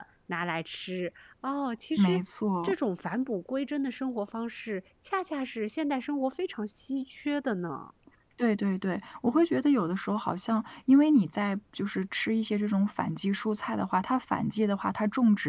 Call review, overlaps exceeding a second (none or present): none